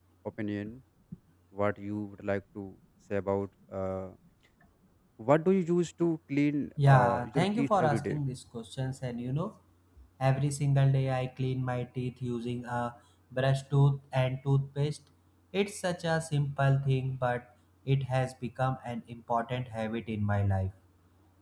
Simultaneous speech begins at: 6.8 s

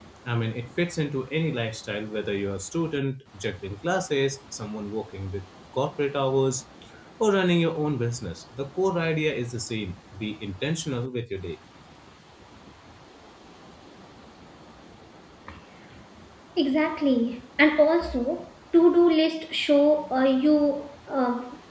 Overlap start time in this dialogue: none

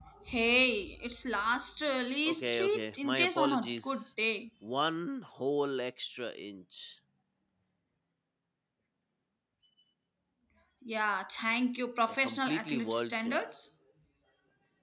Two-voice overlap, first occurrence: 2.2 s

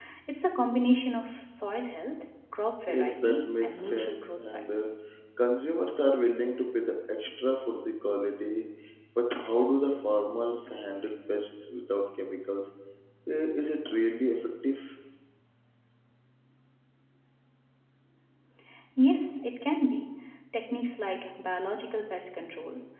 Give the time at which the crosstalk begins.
2.9 s

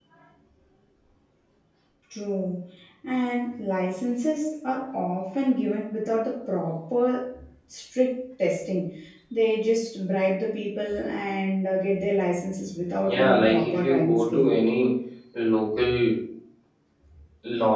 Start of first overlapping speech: 13.0 s

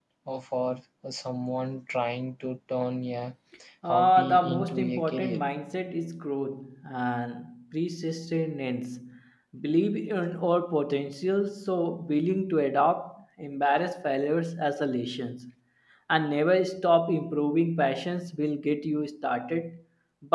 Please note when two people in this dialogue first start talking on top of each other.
3.9 s

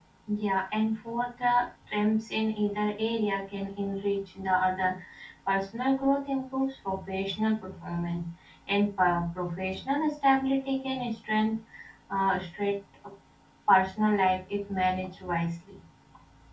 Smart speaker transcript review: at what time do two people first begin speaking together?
none

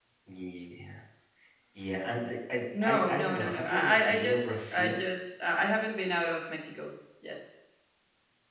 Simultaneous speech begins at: 2.7 s

